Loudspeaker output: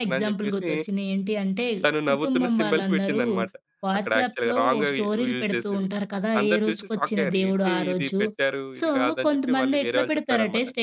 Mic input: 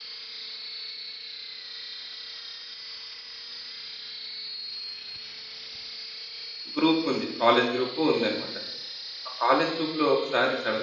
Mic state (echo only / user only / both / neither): user only